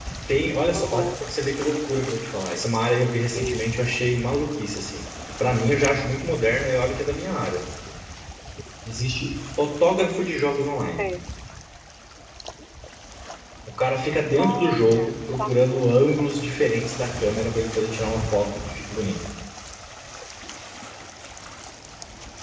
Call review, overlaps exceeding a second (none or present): present